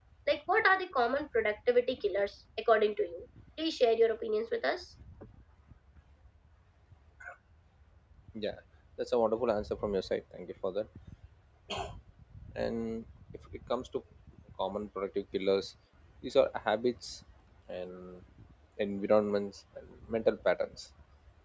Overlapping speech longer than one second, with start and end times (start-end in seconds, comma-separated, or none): none